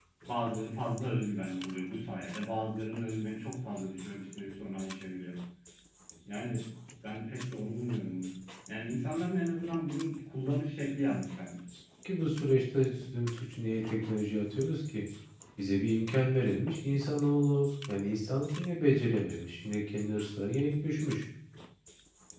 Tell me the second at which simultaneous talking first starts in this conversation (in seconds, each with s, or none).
none